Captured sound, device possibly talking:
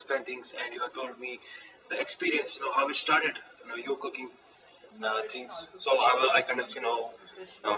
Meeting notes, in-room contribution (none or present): present